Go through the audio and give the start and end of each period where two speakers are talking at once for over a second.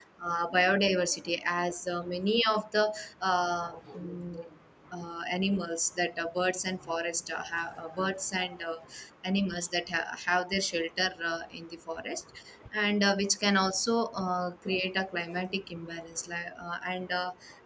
none

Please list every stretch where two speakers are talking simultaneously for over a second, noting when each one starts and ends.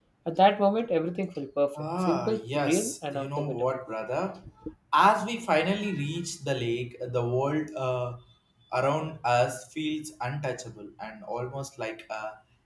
1.8-3.8

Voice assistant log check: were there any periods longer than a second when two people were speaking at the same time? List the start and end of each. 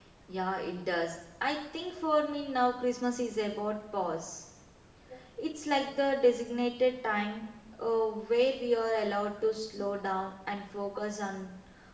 none

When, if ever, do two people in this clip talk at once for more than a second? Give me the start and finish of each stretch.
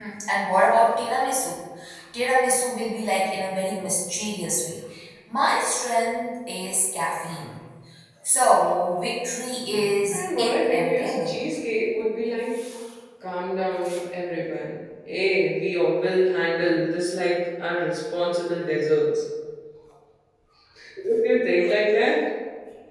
10.1-11.4

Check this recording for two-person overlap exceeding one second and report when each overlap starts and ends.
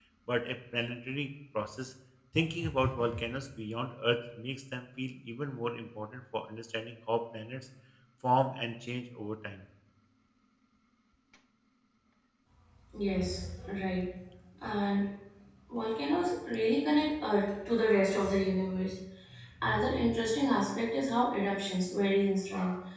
none

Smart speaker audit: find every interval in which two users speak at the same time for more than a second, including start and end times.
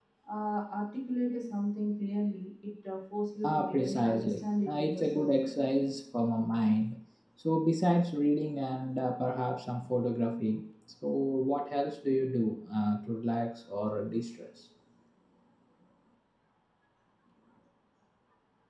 3.4-5.3

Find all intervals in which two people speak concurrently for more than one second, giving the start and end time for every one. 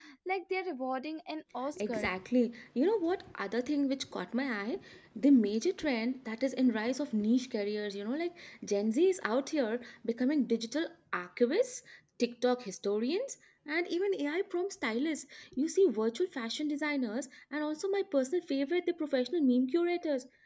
none

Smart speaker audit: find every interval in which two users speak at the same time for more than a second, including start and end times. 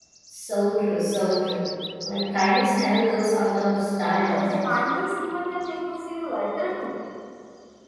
none

